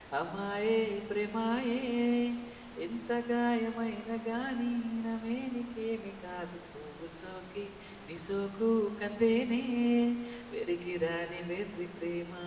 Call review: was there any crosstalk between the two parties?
No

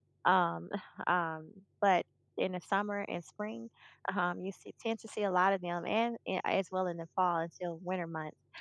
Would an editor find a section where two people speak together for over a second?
No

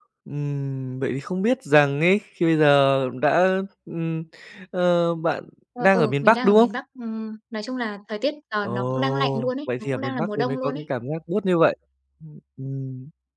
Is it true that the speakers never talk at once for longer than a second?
No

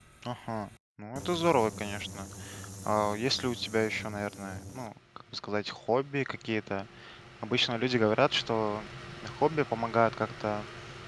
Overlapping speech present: No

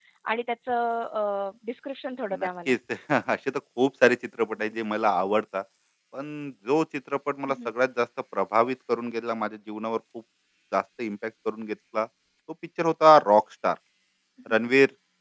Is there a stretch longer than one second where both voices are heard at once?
No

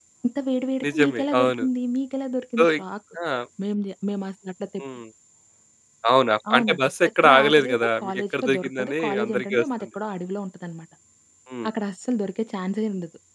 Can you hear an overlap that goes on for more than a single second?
Yes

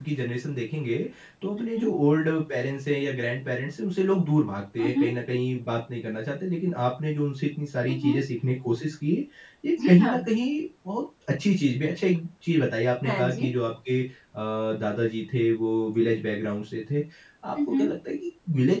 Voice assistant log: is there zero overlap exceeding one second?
Yes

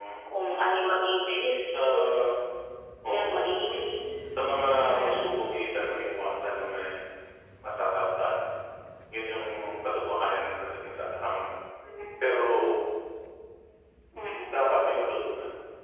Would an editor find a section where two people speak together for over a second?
No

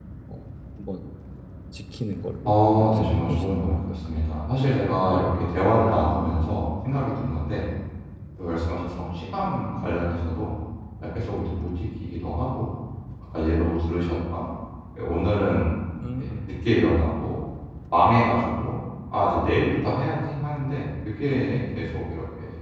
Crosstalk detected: Yes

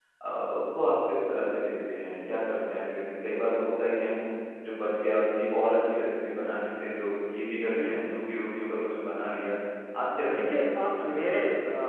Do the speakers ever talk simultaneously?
Yes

